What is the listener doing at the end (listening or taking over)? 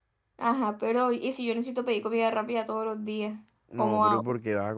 taking over